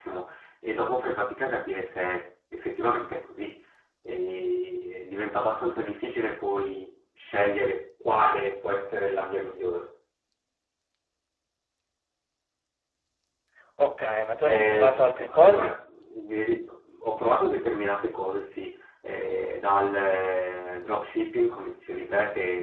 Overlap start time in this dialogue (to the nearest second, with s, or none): 14 s